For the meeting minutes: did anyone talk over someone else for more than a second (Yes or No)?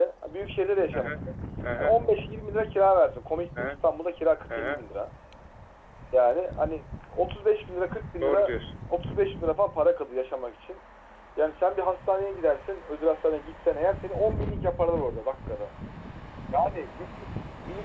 No